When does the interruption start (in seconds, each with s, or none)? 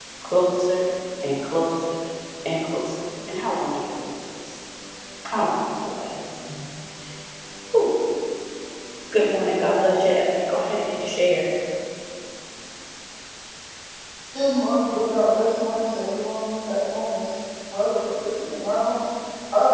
none